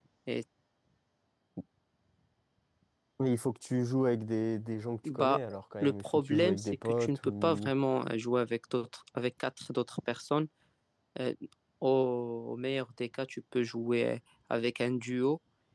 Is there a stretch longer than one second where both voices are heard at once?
Yes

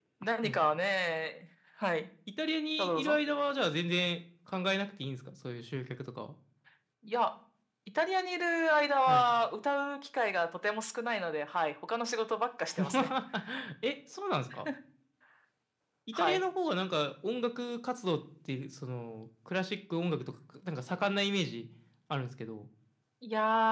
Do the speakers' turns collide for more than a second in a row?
No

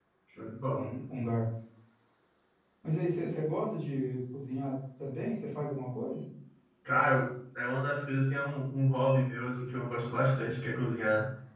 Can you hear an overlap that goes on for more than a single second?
No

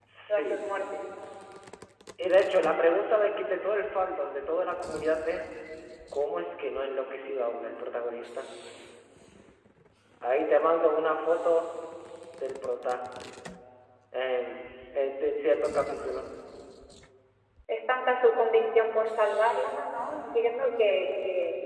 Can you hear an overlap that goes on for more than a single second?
No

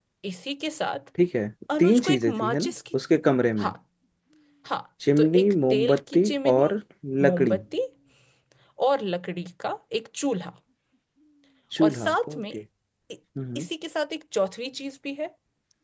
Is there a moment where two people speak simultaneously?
Yes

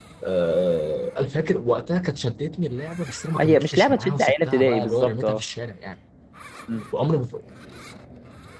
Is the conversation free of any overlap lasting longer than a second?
No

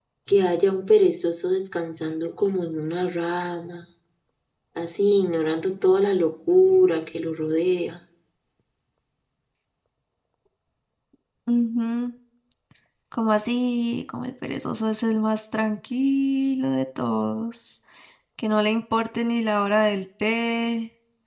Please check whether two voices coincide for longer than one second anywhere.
No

